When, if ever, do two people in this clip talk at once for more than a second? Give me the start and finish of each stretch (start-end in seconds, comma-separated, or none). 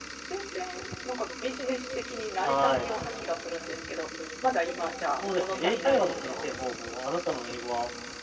5.2-6.4